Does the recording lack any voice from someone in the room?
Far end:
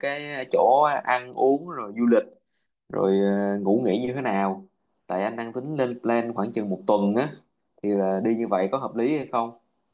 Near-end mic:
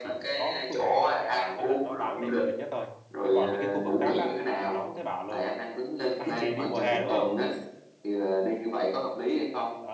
No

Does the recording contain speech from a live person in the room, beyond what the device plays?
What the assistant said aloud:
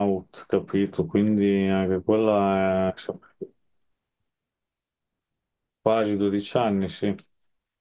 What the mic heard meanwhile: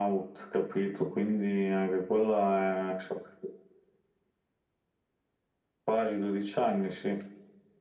No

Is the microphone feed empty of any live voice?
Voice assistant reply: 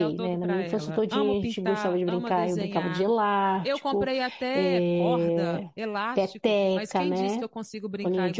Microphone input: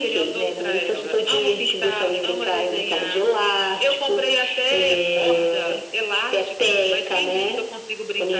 Yes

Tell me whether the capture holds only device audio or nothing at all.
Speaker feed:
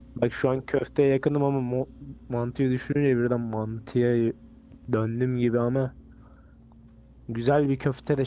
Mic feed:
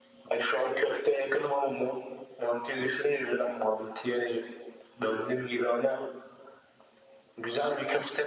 Yes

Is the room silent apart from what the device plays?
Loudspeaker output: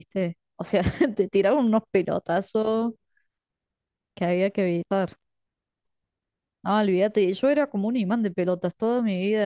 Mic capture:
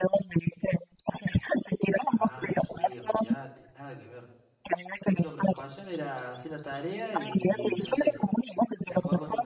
No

